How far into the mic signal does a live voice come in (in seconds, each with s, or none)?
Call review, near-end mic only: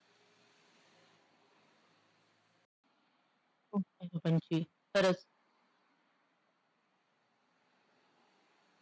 3.7 s